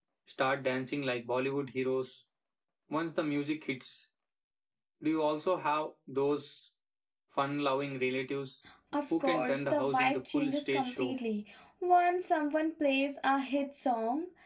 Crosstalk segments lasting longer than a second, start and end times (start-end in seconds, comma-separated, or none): 9.2-11.1